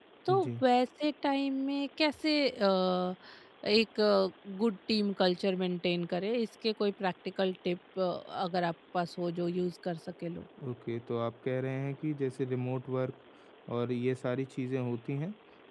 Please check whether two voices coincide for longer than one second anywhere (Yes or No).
No